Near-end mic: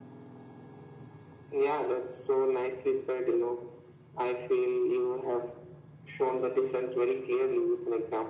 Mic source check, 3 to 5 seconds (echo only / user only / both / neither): echo only